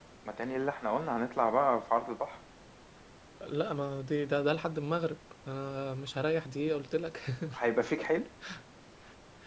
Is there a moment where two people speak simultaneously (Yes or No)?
No